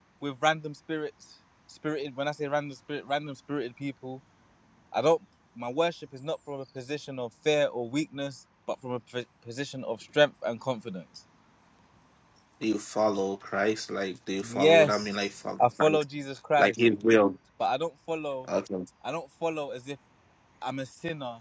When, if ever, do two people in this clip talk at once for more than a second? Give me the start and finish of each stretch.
14.5-16.0

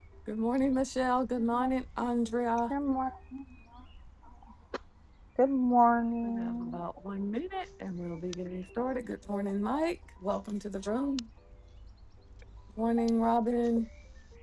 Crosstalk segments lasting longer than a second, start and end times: none

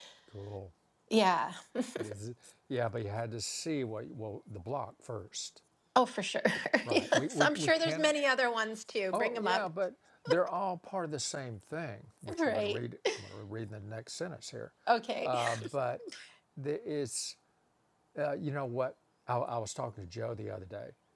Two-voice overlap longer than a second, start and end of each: 6.9-8.1

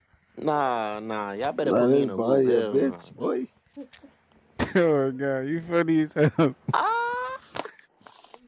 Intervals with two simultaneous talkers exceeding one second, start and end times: 1.6-3.1

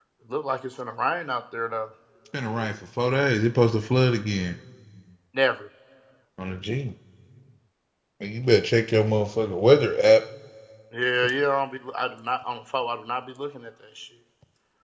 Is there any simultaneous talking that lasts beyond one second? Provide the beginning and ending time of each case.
none

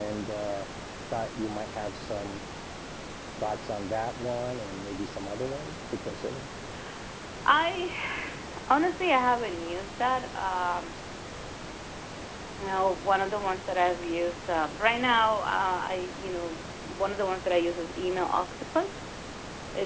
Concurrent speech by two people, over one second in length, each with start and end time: none

